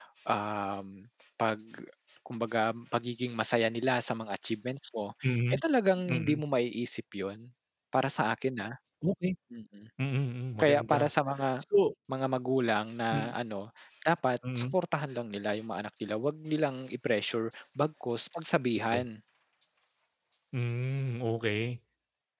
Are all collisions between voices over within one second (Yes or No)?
Yes